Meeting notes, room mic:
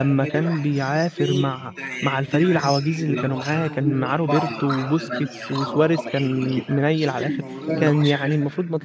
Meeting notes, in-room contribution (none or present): present